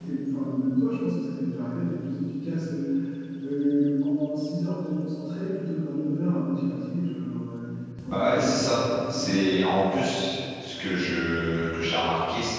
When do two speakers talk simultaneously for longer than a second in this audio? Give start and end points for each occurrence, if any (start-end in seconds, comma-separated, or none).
8.1-9.4